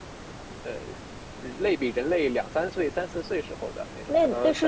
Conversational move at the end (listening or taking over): taking over